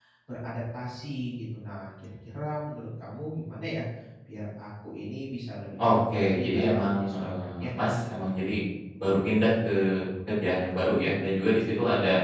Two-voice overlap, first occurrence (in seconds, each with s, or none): 5.8 s